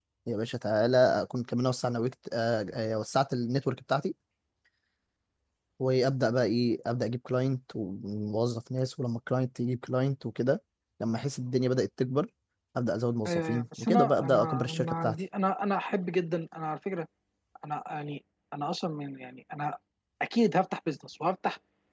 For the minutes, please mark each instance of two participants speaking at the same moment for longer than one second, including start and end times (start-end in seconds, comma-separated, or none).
13.2-15.2